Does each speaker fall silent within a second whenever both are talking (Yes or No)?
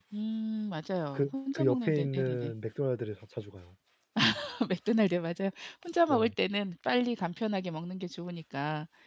No